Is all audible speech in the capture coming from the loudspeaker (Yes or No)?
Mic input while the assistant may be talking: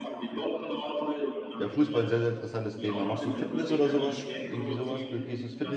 No